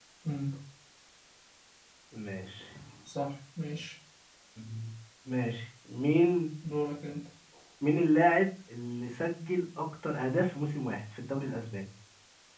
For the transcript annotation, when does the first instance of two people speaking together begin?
none

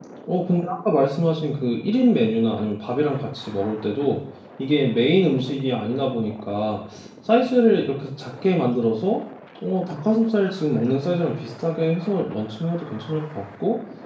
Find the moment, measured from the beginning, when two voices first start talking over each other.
none

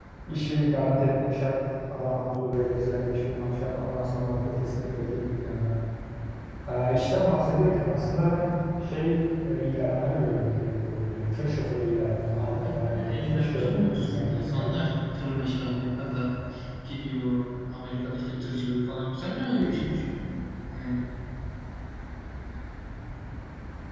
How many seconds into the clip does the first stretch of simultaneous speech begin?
12.3 s

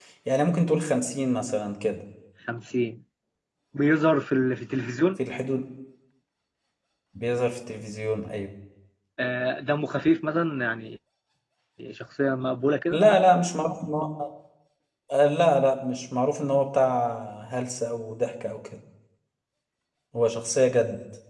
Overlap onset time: none

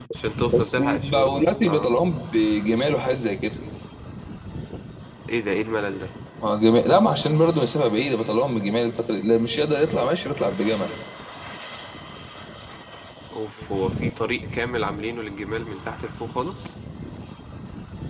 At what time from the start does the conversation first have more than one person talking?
0.5 s

